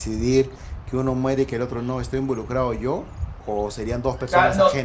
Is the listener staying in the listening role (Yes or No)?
No